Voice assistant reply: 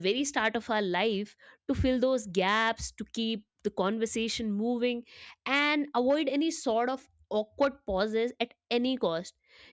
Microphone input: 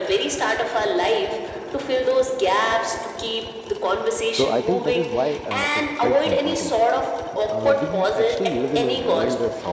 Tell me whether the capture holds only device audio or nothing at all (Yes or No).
No